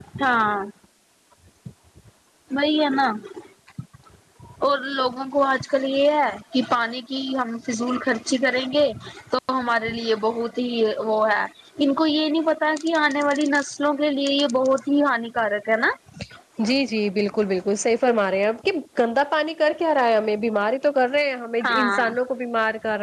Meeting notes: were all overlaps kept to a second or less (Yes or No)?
Yes